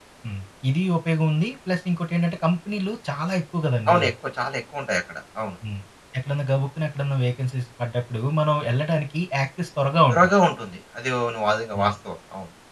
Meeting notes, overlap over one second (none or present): none